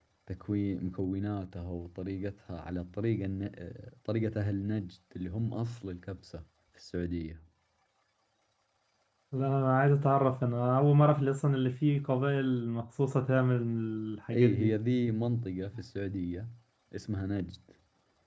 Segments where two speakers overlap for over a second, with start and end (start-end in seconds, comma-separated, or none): none